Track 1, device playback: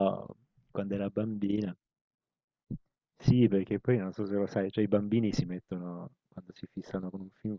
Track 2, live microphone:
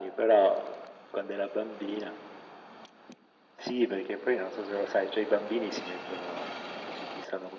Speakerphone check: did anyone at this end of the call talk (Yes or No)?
No